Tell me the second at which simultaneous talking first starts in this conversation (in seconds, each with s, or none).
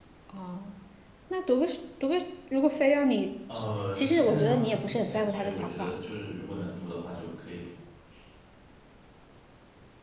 3.9 s